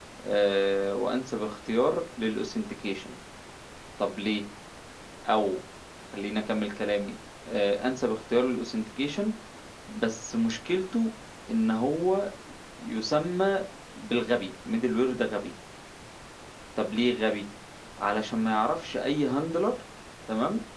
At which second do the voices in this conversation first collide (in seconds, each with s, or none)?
none